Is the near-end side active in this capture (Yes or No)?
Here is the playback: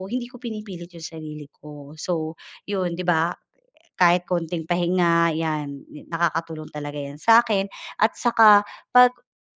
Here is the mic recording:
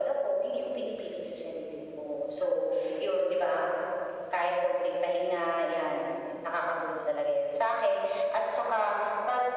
No